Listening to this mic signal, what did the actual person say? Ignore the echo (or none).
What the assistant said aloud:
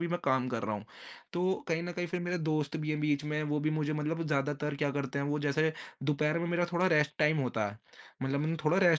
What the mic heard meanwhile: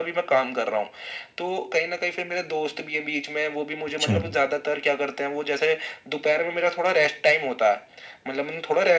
अच्छा।